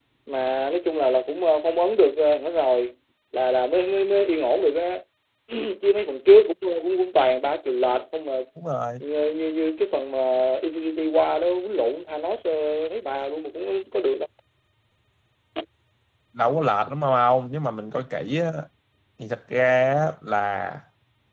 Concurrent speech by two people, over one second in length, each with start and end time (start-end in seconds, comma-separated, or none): none